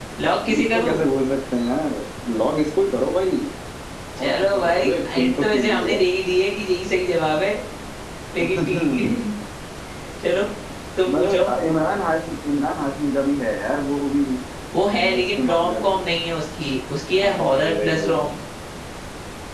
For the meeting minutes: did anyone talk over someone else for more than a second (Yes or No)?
Yes